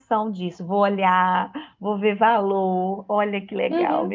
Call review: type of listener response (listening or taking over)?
taking over